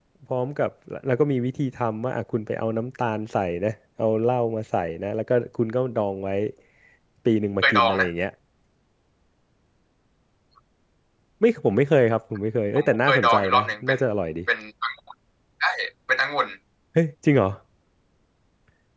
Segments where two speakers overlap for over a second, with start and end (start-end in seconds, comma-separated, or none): 12.8-14.0